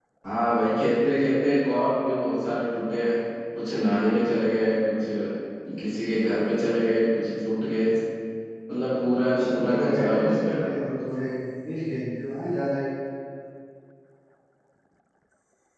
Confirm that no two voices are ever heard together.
No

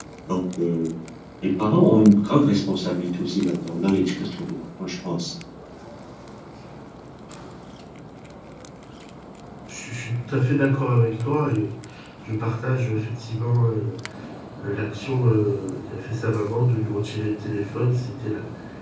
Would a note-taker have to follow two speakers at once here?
No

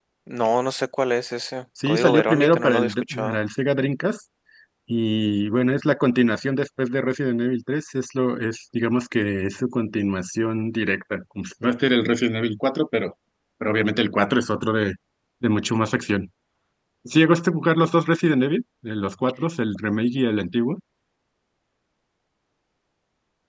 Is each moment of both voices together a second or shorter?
No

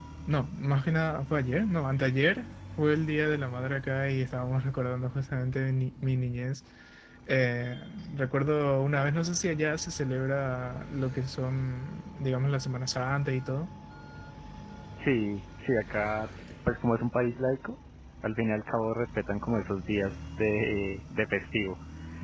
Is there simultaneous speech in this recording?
No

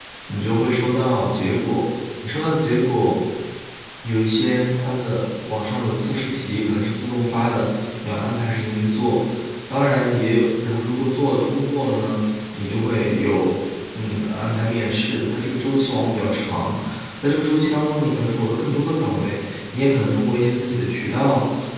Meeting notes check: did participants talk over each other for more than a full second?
No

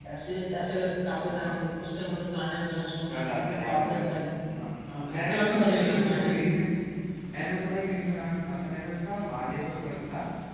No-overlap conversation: No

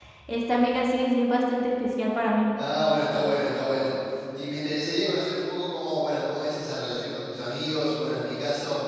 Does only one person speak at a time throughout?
Yes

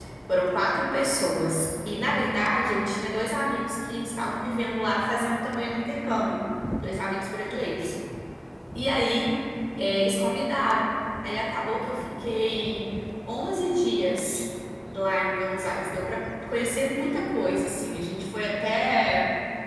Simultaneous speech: No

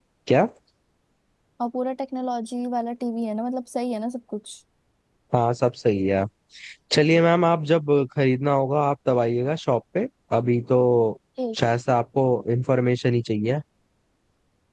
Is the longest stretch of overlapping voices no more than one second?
Yes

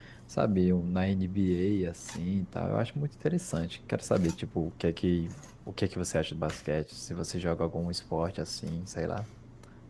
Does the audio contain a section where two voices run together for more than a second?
No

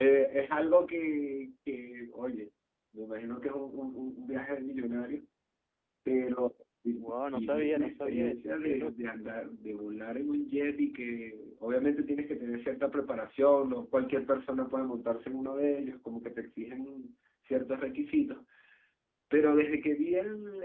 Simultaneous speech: Yes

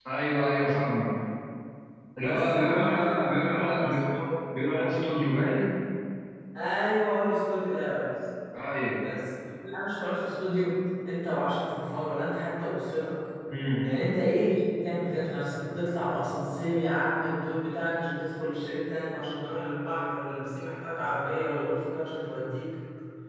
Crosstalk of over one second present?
Yes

